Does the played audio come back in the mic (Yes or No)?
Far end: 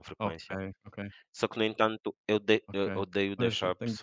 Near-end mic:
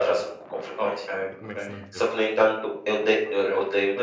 Yes